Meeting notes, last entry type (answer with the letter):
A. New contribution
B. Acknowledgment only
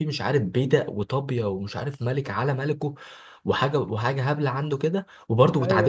B